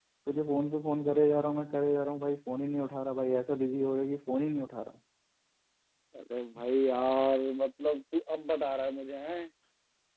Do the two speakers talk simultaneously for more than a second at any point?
No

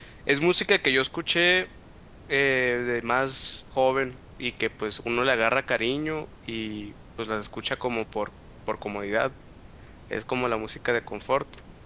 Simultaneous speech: No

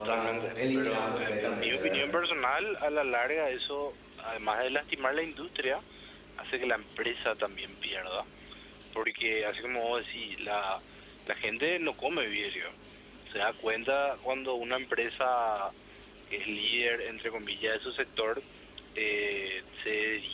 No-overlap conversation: No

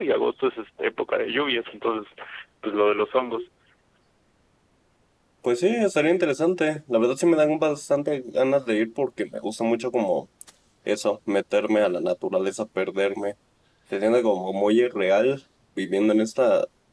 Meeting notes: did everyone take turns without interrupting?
Yes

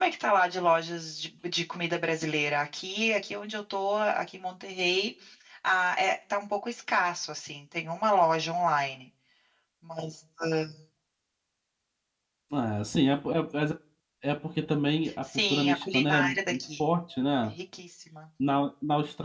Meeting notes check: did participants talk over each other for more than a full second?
Yes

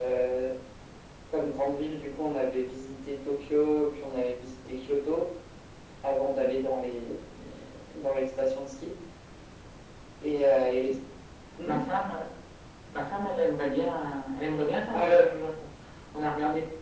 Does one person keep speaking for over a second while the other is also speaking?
No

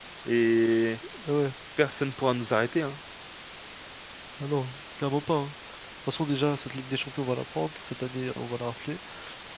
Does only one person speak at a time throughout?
Yes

